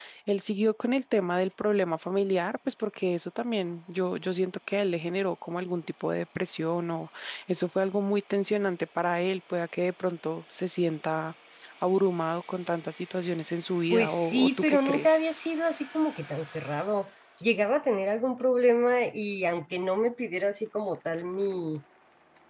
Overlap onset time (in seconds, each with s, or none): 13.9 s